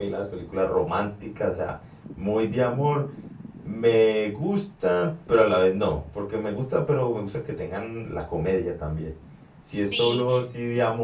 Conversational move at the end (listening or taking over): listening